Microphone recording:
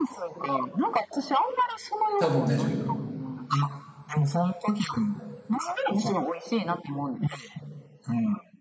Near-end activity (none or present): present